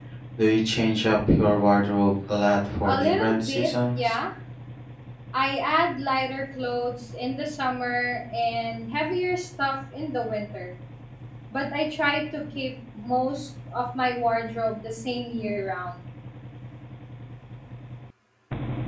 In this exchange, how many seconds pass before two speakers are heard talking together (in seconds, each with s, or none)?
2.8 s